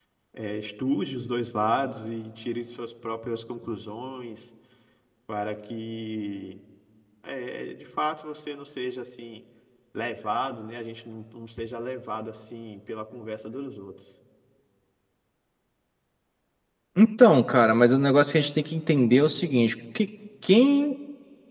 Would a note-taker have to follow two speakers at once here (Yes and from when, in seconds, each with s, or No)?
No